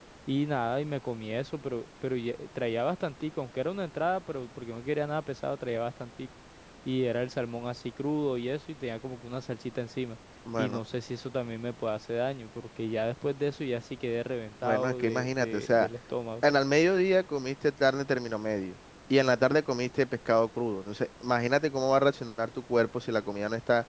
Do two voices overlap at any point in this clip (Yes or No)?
Yes